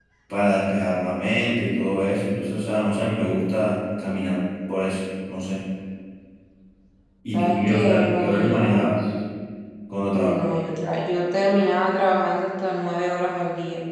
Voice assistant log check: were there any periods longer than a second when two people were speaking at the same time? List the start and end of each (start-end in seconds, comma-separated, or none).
7.3-8.9